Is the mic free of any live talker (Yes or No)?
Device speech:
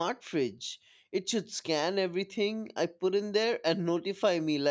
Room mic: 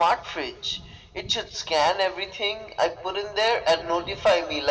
Yes